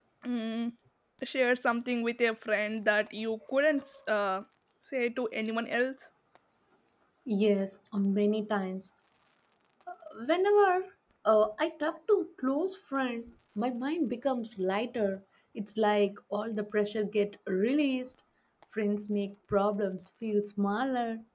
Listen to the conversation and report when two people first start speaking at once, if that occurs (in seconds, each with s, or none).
none